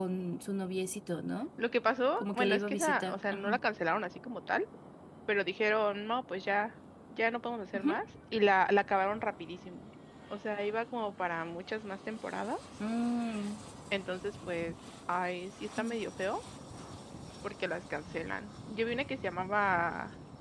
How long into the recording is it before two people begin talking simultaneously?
2.2 s

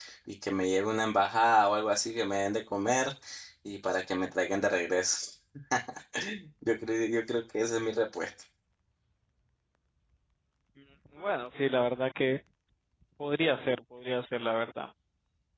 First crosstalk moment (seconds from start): none

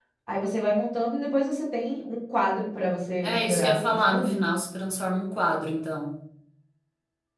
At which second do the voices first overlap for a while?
3.2 s

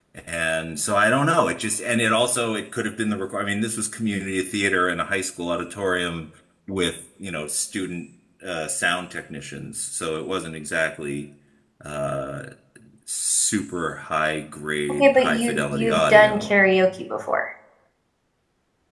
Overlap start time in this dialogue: 15.0 s

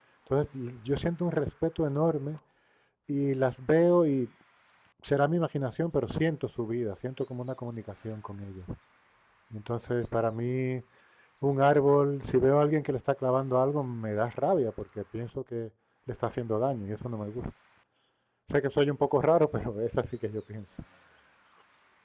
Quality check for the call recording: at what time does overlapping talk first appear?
none

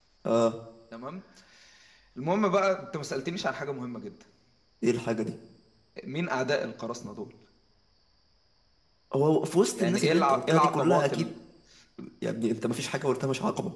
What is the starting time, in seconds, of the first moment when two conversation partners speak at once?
9.8 s

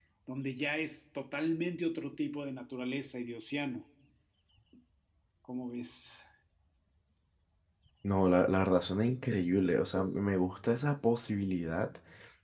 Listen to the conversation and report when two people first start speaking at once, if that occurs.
none

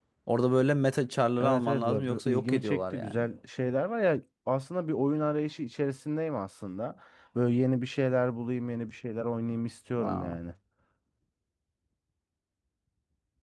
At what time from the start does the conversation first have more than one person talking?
1.4 s

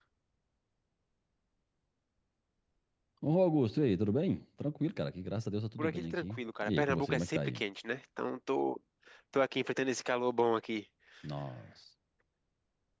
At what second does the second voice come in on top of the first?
5.8 s

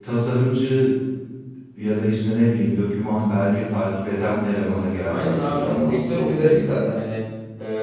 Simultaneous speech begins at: 5.1 s

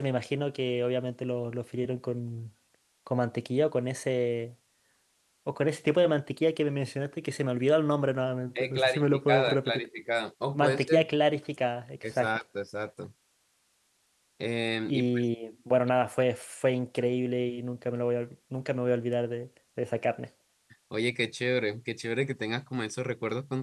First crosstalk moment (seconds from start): 8.6 s

